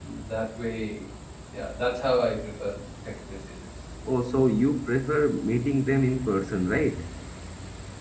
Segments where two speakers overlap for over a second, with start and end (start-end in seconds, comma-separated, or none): none